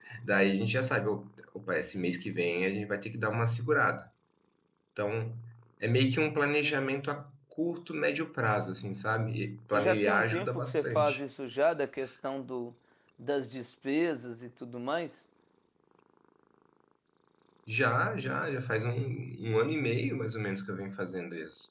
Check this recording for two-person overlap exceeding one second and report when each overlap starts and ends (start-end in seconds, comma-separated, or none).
9.7-11.2